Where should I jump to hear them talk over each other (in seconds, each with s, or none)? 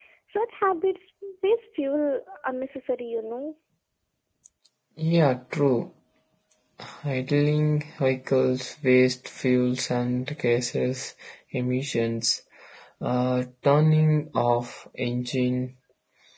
none